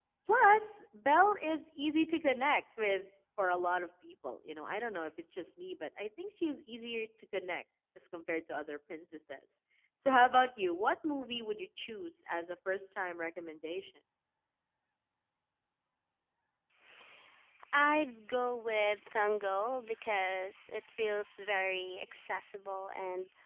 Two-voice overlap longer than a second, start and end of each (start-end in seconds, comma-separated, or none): none